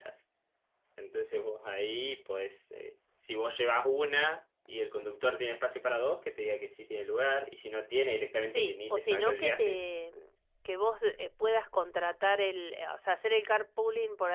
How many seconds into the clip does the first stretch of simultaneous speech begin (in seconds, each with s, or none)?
8.5 s